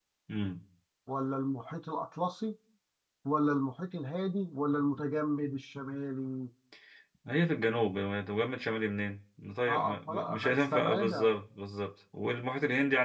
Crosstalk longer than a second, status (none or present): present